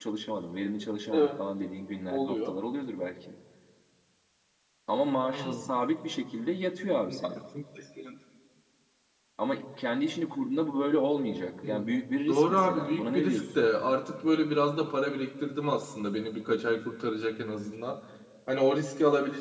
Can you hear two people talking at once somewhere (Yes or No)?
Yes